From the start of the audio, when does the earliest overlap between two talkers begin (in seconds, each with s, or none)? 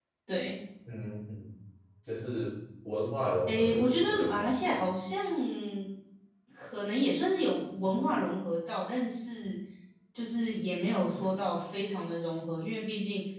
3.5 s